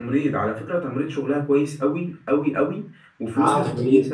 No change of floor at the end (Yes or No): Yes